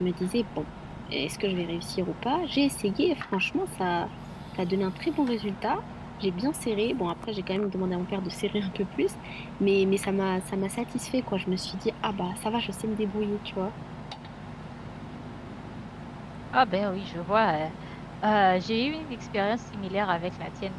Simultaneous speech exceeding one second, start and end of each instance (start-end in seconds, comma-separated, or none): none